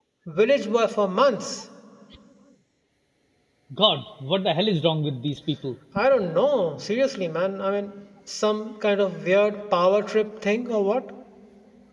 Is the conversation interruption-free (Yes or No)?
Yes